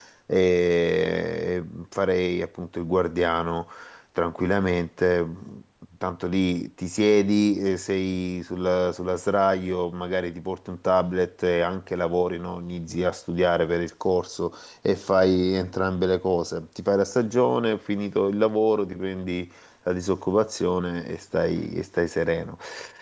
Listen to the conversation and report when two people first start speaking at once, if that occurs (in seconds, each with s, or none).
none